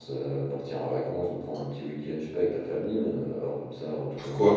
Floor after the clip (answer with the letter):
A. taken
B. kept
A